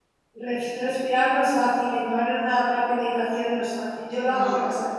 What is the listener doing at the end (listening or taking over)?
listening